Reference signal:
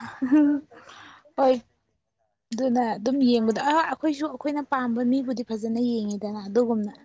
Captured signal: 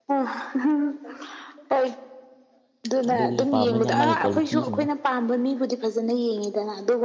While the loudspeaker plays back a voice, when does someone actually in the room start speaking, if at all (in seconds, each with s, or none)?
3.1 s